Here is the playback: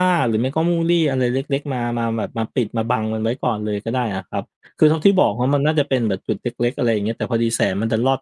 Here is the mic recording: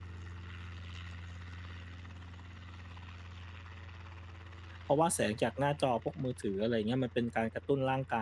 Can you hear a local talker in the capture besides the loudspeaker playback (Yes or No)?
Yes